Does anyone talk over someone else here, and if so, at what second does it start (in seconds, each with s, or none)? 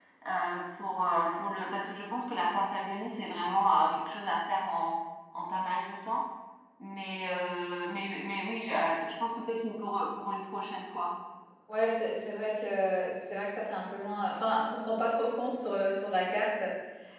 none